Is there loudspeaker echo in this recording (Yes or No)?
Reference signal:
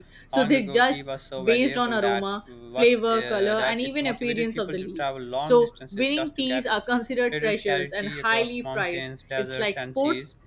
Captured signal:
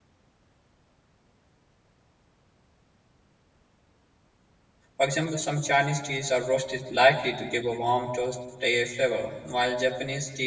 No